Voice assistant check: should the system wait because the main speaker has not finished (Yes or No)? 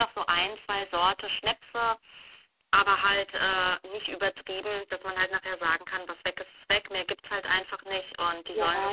No